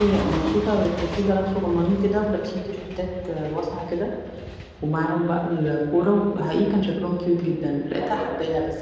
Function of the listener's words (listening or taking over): listening